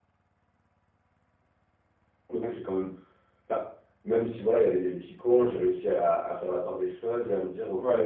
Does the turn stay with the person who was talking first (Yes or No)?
Yes